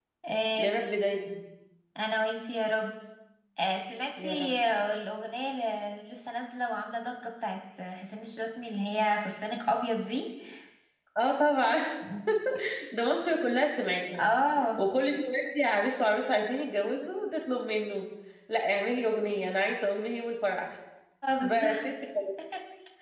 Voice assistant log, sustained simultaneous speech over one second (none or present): none